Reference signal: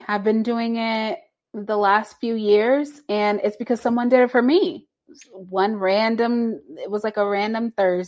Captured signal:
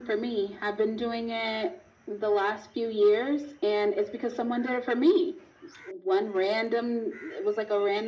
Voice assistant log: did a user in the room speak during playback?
No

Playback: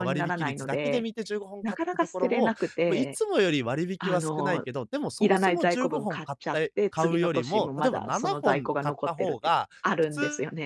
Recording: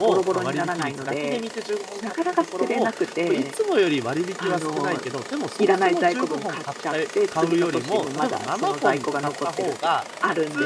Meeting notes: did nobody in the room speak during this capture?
Yes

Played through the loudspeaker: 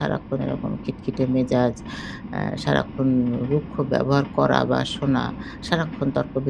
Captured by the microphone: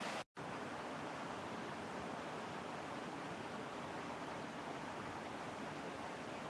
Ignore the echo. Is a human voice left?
No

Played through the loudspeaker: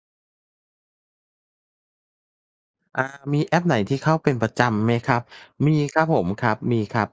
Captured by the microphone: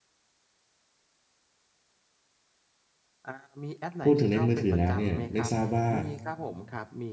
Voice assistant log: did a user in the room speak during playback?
Yes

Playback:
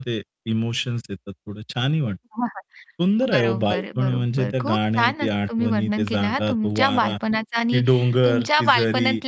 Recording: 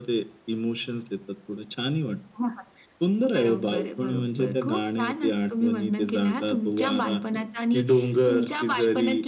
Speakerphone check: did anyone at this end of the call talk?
No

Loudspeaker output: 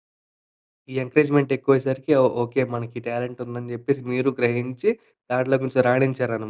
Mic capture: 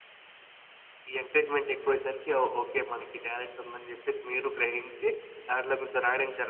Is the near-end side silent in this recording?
Yes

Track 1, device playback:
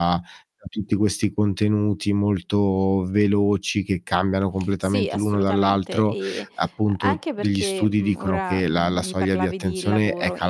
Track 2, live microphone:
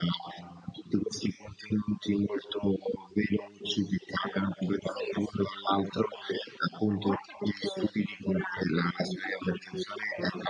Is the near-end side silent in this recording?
Yes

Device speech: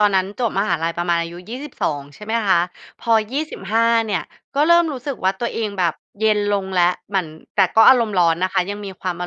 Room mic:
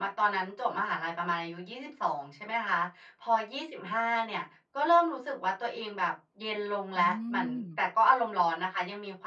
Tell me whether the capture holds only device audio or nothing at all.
No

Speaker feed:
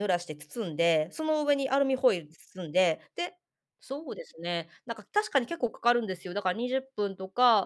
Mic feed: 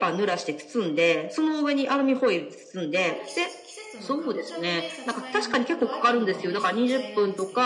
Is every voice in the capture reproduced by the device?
No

